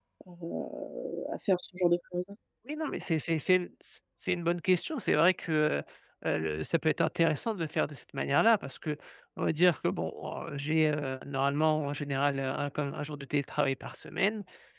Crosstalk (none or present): none